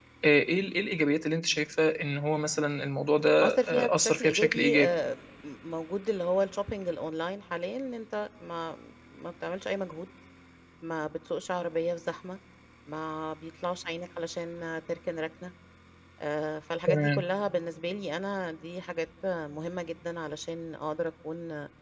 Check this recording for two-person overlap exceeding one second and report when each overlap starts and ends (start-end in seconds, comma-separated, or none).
3.4-5.0